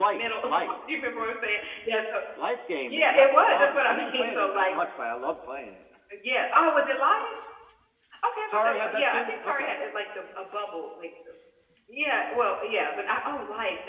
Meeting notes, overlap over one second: present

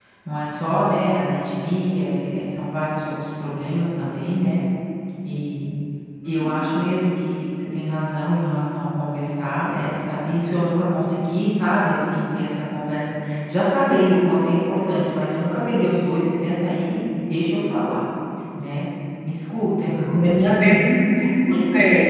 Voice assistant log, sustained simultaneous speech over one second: none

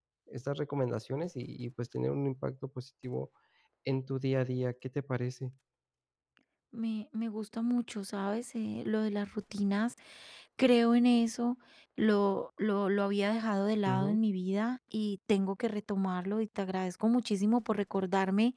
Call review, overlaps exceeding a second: none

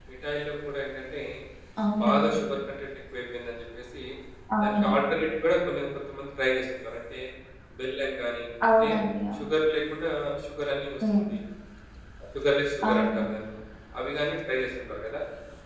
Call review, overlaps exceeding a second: none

